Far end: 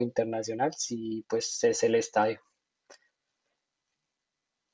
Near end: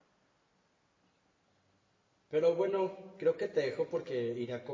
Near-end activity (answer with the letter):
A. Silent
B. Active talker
B